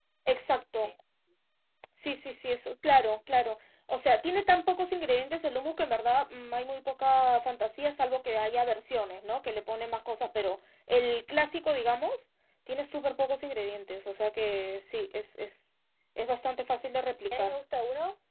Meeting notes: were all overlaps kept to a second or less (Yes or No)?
Yes